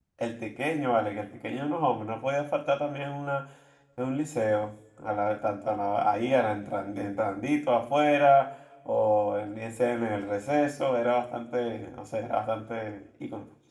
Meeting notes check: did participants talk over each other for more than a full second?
No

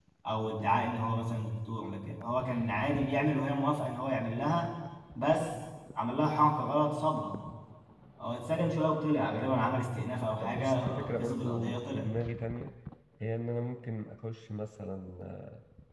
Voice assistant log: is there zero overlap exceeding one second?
No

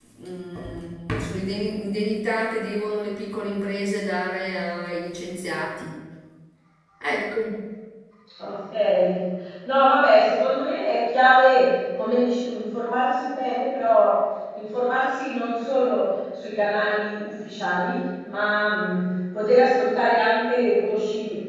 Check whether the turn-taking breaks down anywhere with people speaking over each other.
No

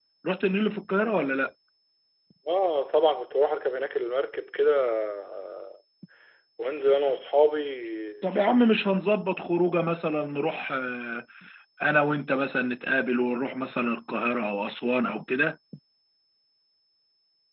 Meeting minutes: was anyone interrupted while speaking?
No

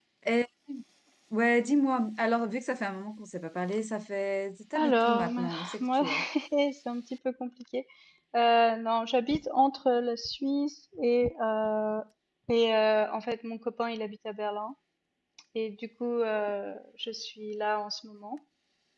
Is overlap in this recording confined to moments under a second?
No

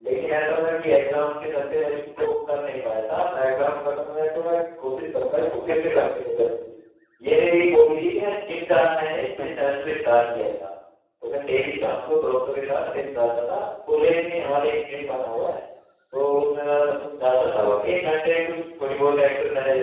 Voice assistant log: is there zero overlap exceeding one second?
Yes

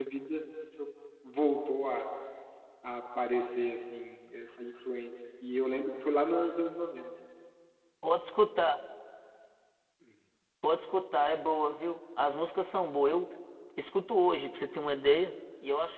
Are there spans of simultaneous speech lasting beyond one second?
No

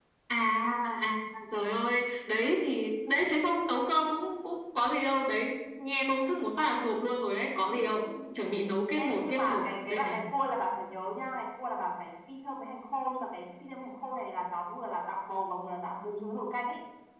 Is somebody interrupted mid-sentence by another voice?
Yes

